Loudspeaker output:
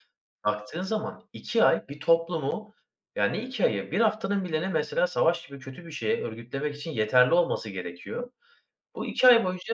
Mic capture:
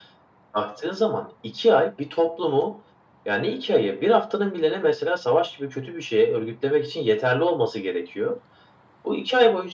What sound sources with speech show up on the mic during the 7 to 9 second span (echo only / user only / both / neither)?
echo only